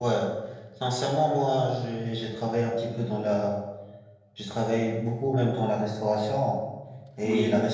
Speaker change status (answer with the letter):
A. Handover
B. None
B